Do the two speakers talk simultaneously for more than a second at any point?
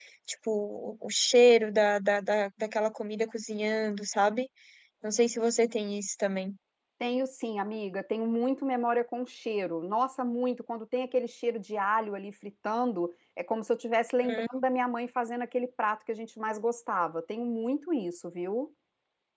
No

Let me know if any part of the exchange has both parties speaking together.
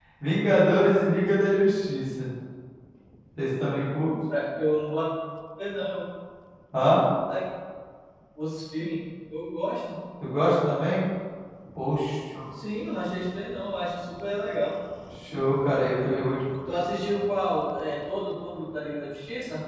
No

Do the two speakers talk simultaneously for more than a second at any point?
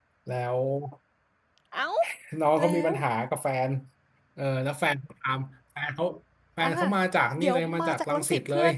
Yes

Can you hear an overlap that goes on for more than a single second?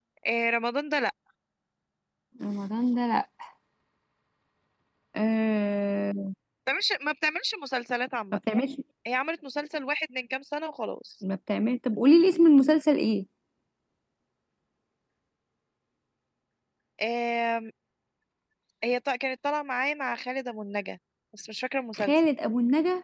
No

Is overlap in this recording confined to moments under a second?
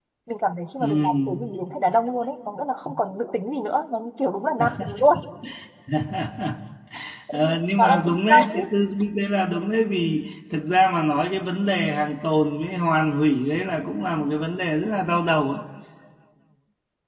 No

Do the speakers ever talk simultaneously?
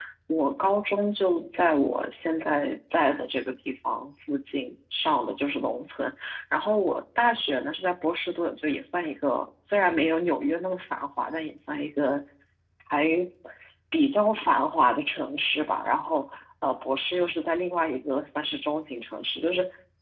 No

